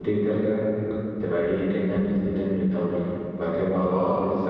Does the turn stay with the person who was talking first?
Yes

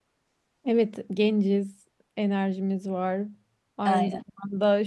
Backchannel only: Yes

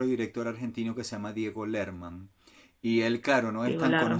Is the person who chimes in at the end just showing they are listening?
Yes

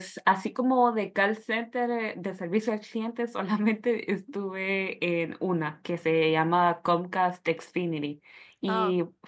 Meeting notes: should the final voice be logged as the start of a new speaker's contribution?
No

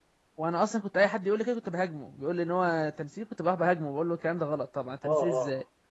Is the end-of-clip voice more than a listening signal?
Yes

